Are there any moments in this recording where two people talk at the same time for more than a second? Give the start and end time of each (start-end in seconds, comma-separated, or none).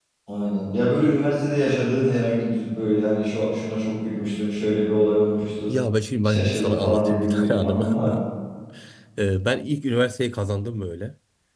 6.2-8.0